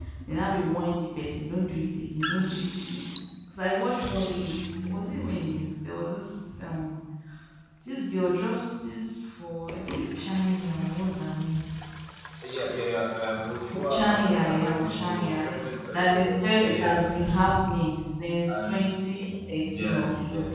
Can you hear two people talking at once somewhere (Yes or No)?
Yes